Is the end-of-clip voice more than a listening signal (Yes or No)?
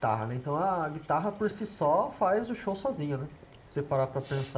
Yes